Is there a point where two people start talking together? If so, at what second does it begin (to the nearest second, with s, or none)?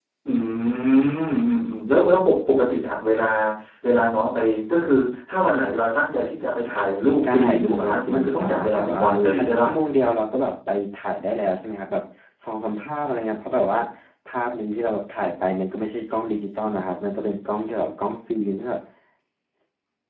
7 s